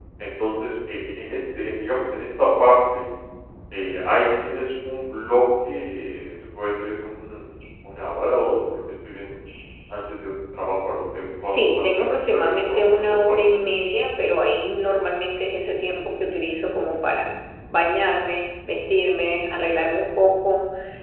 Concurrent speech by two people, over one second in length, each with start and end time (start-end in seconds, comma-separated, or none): 11.4-13.6